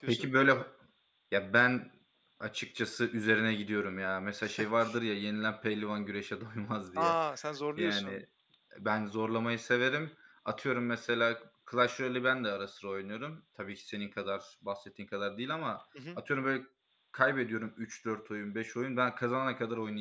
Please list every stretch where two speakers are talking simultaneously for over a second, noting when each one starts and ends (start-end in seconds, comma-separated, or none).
none